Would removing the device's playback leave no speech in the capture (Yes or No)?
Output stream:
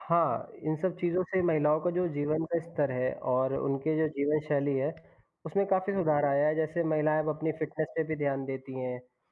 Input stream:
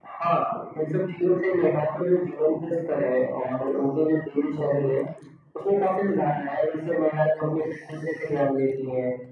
Yes